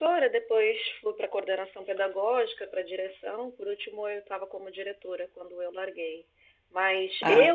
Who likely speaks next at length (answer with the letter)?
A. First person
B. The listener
A